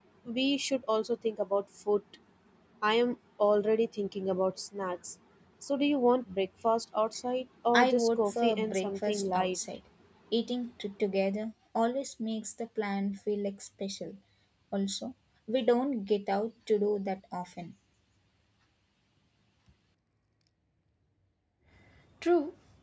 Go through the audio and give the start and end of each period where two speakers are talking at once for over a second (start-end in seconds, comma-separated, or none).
7.8-9.6